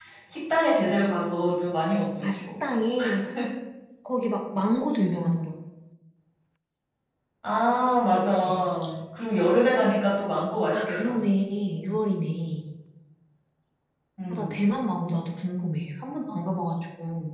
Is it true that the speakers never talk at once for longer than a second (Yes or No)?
Yes